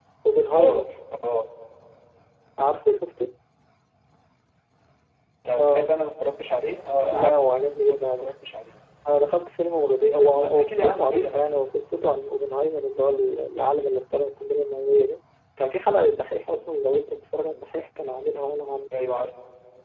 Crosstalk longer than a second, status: present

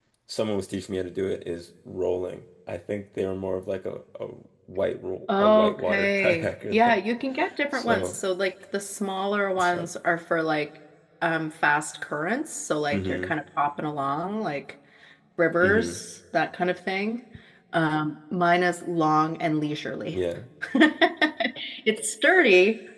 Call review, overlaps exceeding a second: present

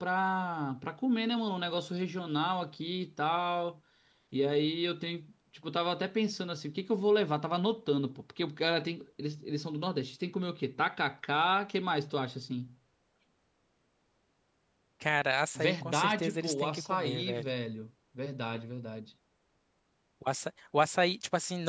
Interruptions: present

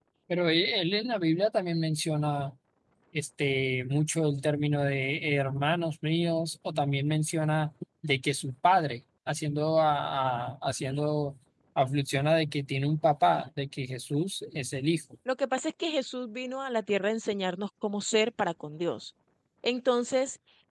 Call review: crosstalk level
none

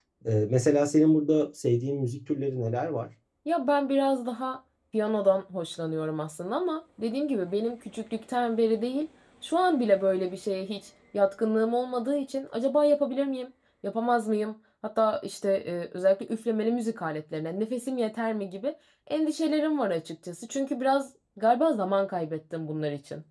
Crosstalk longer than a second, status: none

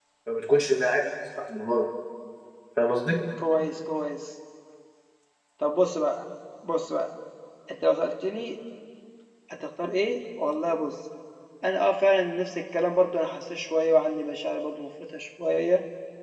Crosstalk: none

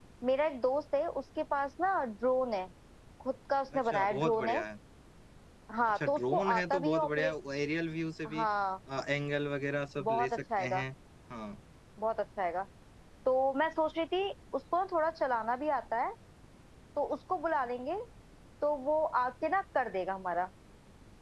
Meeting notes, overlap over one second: present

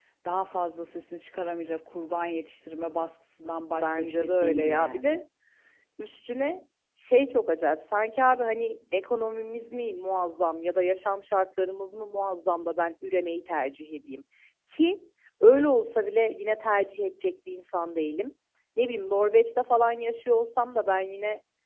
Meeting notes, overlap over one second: present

